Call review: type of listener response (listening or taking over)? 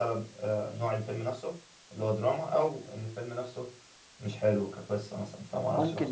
taking over